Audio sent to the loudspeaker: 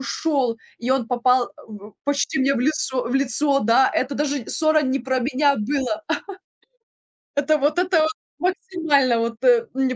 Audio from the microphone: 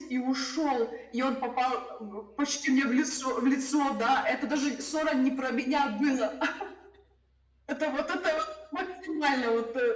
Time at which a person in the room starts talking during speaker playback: none

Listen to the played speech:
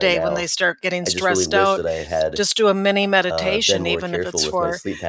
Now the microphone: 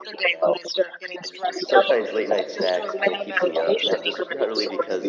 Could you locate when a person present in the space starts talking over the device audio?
2 s

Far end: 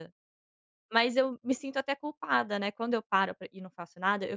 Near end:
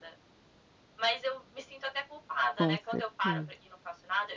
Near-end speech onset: 3 s

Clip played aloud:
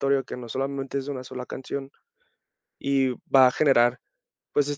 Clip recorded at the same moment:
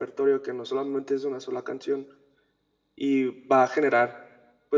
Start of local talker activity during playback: none

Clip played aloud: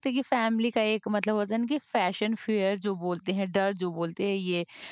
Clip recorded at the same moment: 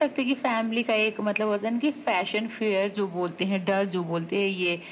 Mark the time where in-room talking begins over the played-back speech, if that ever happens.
none

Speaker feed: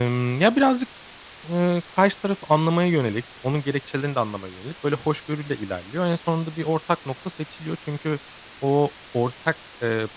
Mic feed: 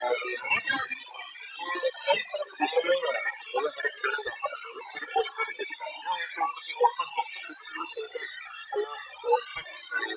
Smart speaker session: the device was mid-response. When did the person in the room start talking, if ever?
none

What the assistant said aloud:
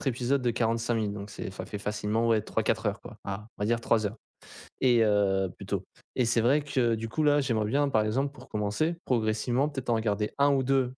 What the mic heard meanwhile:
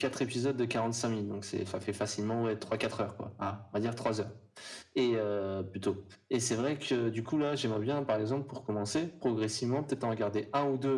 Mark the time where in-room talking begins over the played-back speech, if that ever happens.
none

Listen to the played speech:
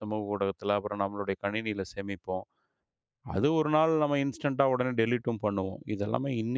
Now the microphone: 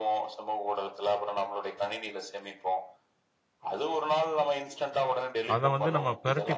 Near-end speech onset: 6 s

